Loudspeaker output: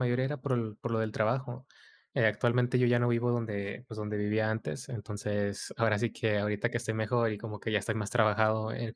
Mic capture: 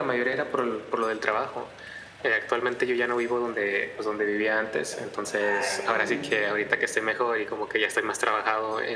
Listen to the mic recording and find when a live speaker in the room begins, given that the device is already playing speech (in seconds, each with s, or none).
5.4 s